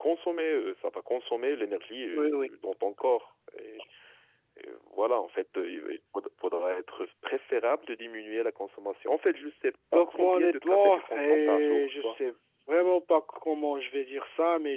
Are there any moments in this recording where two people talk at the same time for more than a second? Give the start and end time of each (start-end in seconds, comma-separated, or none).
9.9-12.2